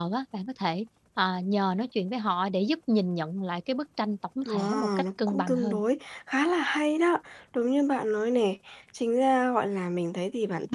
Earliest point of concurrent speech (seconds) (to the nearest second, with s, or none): 4 s